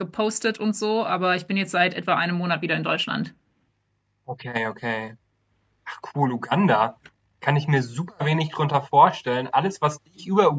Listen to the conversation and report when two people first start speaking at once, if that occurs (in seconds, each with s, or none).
none